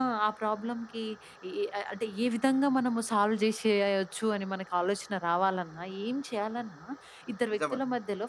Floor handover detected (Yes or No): No